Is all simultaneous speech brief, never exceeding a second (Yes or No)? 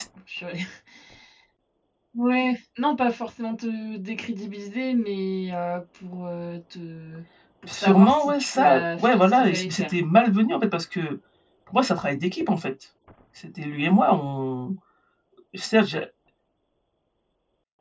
No